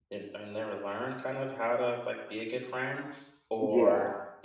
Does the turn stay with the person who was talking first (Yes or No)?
Yes